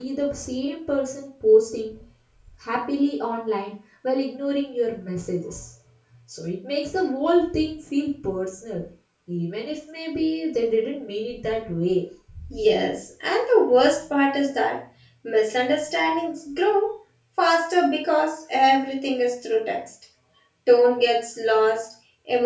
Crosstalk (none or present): none